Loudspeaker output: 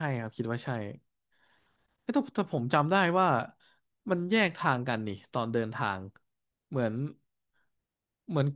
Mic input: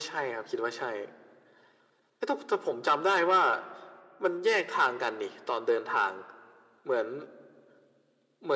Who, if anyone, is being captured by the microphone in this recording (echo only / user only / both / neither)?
echo only